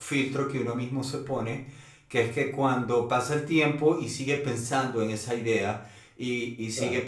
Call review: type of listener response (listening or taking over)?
listening